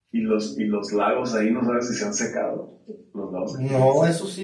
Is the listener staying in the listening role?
No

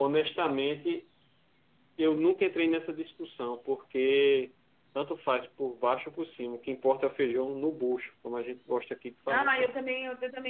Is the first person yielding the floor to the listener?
Yes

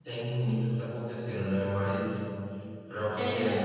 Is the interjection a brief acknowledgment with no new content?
Yes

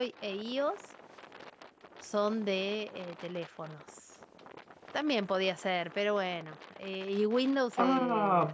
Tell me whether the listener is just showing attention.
No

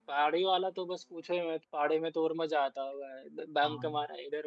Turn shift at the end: No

